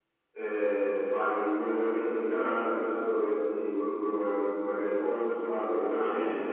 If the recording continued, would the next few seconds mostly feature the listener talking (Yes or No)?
Yes